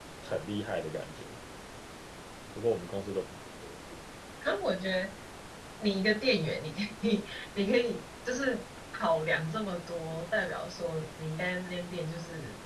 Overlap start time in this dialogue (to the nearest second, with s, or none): none